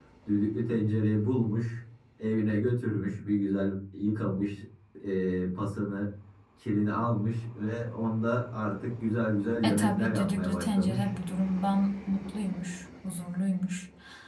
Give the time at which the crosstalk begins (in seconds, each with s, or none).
9.6 s